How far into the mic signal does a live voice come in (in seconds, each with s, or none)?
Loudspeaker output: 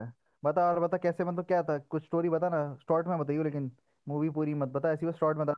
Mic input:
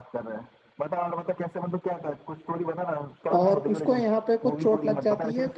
3.4 s